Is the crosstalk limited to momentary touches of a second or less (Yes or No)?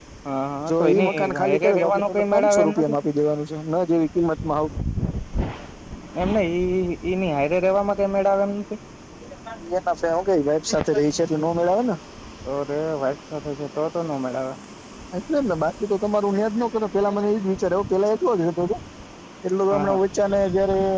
No